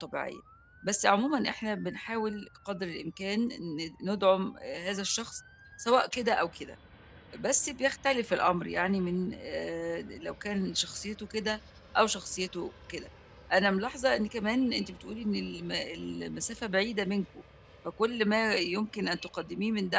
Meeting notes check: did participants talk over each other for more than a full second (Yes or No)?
No